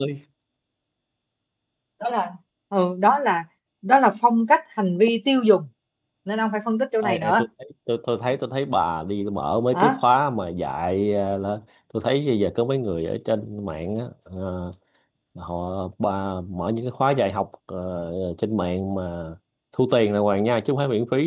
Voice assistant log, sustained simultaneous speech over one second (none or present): none